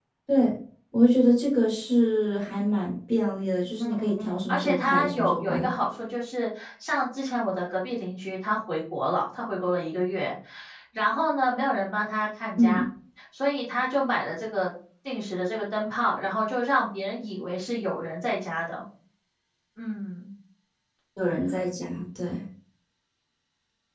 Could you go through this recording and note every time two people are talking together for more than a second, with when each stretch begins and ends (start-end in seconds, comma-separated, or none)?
3.8-5.7